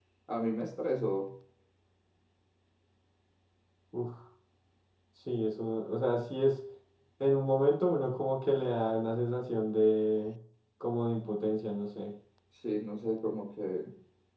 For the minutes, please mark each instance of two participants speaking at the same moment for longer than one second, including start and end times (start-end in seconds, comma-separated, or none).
none